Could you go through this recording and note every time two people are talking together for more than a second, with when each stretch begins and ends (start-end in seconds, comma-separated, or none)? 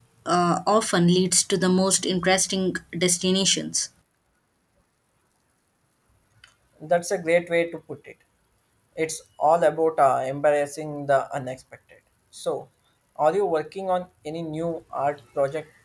none